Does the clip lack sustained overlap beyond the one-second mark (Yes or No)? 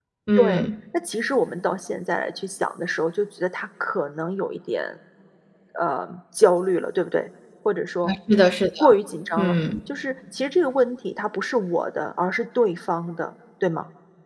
Yes